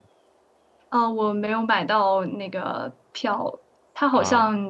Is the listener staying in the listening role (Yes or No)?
Yes